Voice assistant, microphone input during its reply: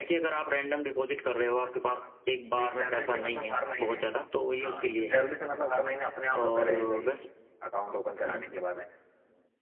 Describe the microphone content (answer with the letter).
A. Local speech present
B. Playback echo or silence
A